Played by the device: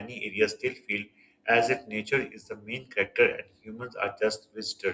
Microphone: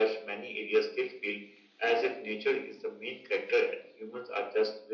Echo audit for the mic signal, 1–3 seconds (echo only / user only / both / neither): echo only